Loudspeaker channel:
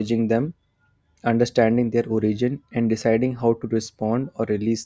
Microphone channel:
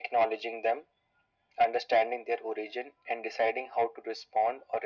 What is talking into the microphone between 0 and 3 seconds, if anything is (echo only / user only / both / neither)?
echo only